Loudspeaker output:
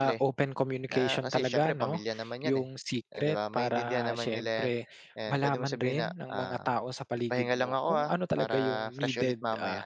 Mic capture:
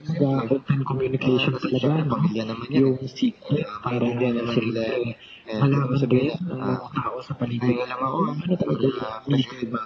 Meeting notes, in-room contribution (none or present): none